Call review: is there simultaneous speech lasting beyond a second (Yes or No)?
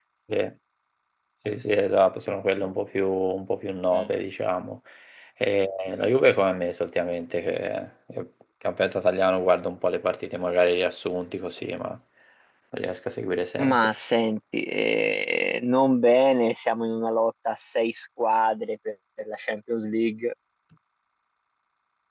No